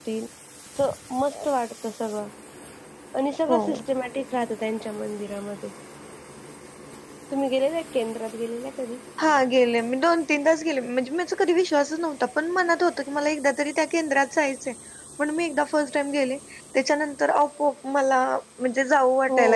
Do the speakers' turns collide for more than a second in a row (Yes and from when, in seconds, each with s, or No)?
No